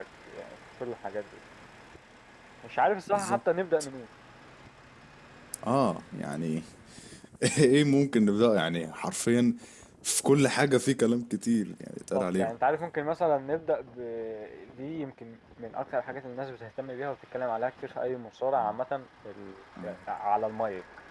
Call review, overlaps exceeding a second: none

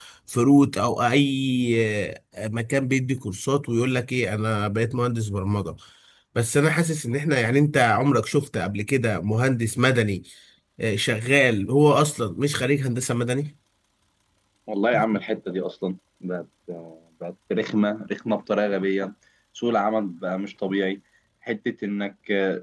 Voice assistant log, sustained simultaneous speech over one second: none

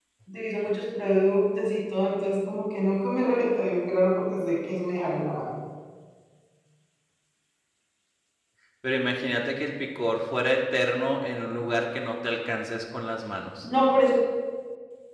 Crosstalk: none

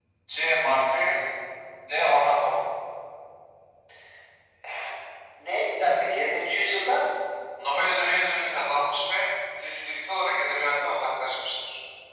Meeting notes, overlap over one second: none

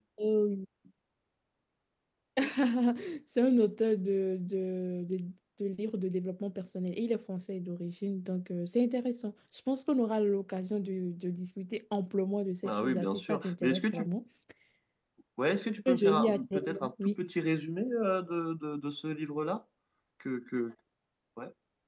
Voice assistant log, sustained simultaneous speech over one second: present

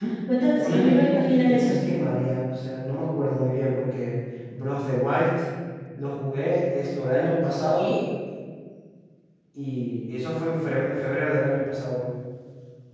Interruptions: present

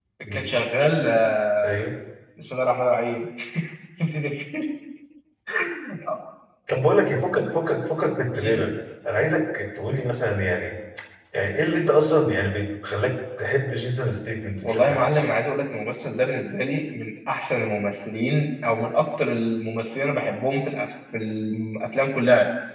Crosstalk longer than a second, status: none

